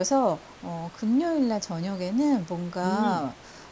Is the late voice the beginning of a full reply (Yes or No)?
No